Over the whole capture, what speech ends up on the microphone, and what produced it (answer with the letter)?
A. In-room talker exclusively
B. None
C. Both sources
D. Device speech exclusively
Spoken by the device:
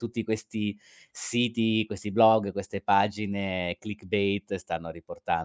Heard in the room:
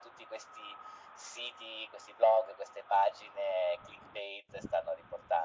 D